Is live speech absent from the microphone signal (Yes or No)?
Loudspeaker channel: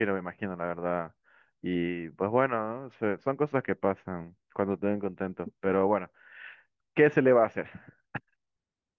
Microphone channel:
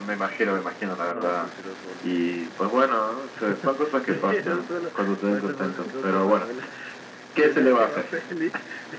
No